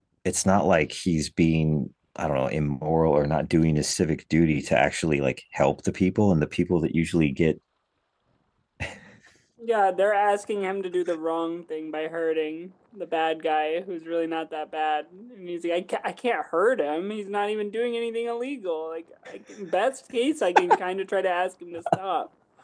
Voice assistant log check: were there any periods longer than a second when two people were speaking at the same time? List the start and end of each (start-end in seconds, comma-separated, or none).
none